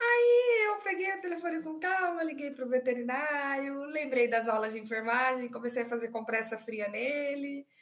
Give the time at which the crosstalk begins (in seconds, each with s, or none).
none